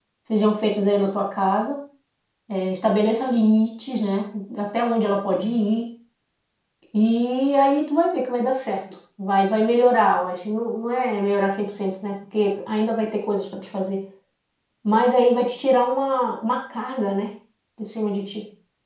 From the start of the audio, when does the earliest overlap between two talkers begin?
none

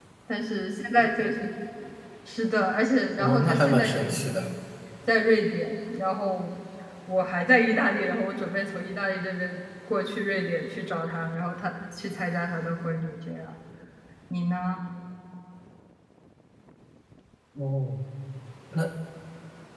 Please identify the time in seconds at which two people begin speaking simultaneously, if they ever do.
3.2 s

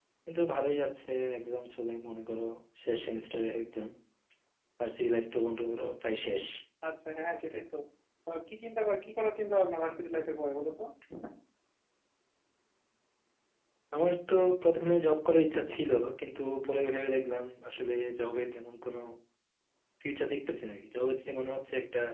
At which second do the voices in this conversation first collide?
none

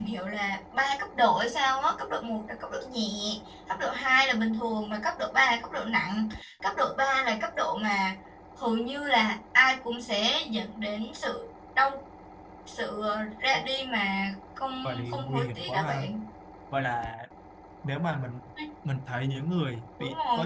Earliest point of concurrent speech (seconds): 14.8 s

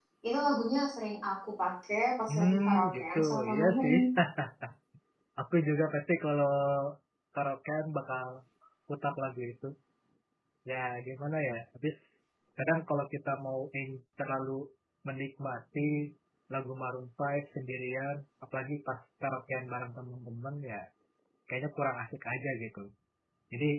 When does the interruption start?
2.3 s

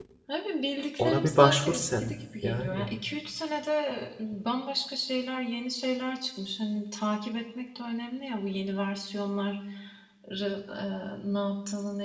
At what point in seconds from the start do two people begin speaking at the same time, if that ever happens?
1.0 s

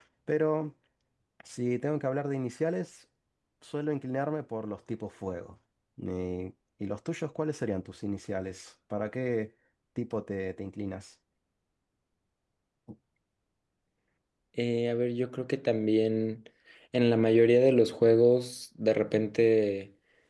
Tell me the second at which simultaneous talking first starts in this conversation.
none

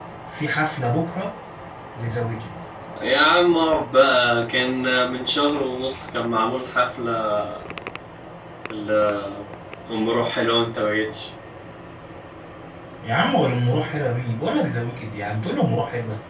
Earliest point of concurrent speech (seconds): none

